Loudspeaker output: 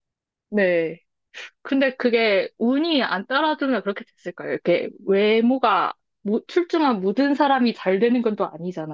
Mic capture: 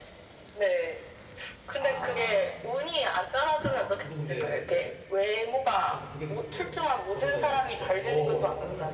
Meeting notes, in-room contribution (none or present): present